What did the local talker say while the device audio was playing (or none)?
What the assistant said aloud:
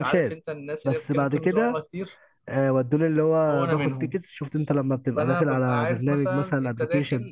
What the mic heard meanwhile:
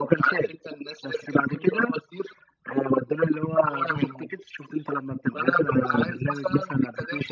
none